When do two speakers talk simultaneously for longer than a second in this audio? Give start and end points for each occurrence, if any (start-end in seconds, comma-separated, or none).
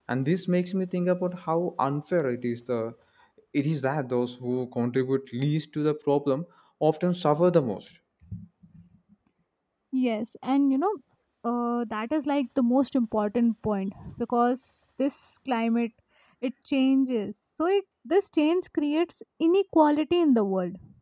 none